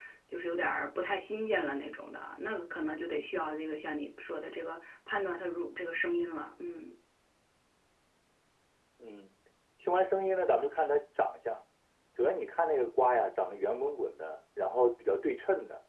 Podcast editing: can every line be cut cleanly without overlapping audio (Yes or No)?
Yes